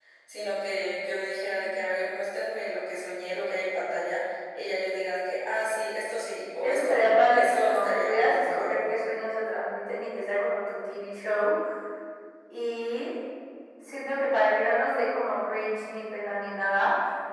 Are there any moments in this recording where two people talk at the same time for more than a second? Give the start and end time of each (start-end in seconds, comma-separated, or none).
6.6-8.9